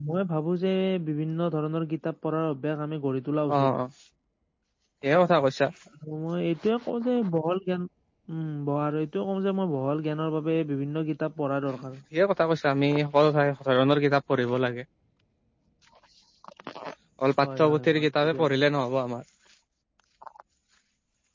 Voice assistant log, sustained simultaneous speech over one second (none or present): present